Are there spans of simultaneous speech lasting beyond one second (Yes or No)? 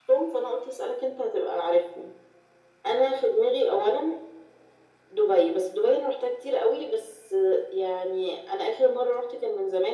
No